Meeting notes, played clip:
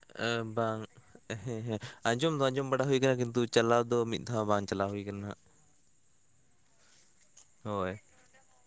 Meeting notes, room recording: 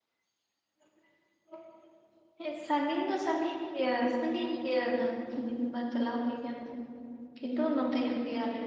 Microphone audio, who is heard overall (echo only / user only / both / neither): user only